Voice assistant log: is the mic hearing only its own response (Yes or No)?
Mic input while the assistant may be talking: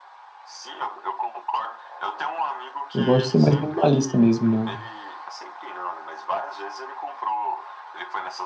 No